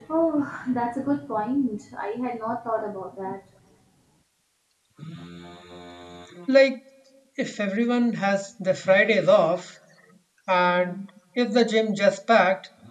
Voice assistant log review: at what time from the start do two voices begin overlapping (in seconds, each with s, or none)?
none